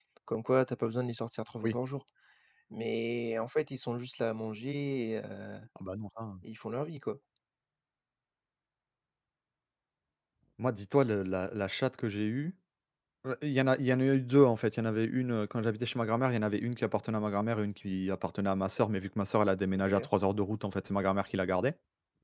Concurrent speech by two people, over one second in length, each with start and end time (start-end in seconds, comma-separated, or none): none